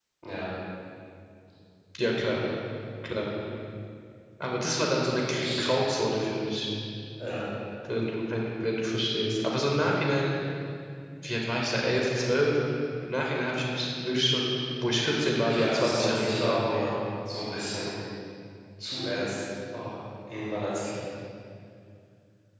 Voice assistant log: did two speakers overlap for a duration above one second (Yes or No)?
Yes